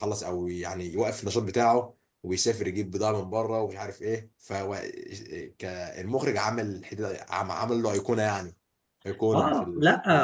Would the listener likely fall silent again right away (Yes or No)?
No